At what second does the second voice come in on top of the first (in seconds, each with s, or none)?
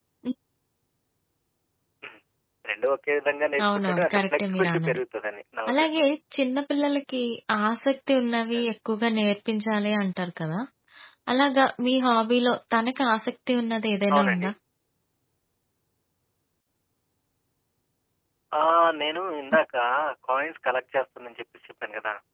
3.6 s